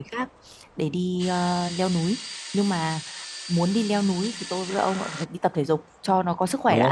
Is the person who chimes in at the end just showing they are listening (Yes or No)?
No